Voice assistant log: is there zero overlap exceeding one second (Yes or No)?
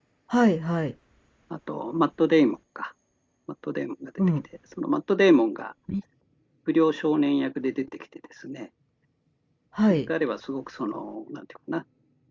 Yes